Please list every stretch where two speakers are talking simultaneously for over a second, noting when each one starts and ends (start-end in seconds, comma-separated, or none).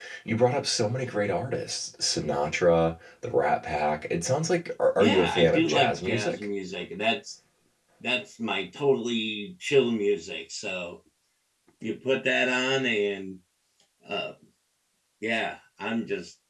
5.0-6.5